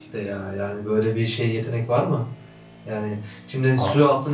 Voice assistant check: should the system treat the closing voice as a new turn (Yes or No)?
No